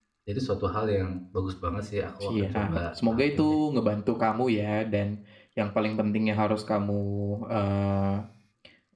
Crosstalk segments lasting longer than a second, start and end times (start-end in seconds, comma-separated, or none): 2.2-3.6